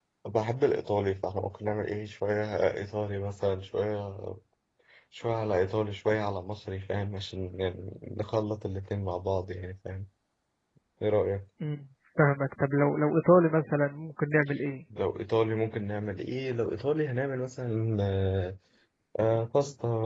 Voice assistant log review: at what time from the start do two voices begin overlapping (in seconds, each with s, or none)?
none